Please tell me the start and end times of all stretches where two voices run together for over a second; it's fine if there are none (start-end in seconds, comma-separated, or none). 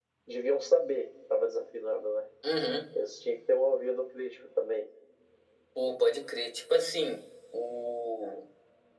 none